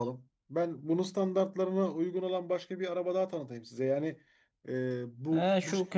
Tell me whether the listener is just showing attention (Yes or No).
No